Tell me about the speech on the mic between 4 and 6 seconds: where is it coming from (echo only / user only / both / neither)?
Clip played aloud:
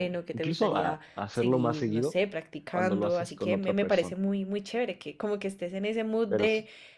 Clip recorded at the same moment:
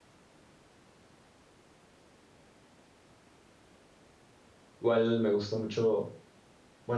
user only